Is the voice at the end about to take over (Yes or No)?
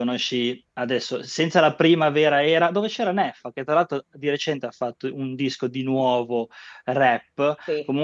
No